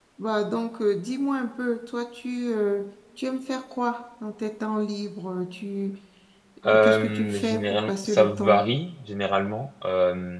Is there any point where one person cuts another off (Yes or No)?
Yes